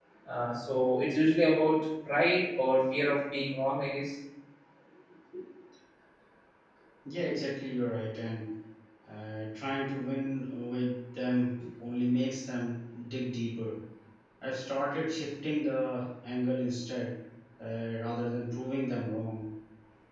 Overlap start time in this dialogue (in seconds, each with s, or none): none